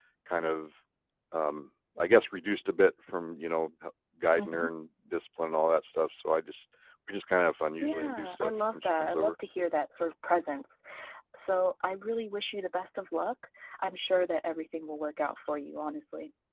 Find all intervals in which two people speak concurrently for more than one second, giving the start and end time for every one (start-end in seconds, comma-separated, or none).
7.8-9.3